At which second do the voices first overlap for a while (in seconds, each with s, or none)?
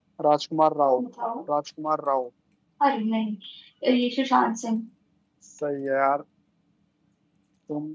none